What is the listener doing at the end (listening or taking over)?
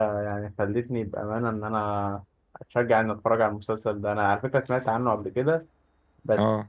listening